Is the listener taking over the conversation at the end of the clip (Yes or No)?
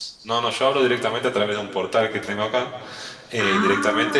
No